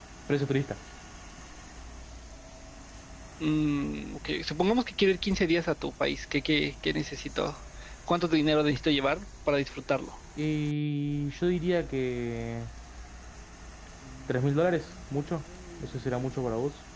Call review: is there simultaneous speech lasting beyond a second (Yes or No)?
No